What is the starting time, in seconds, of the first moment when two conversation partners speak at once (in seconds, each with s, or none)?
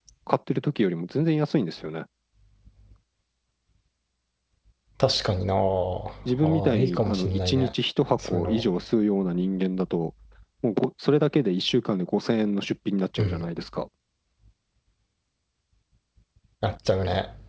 6.4 s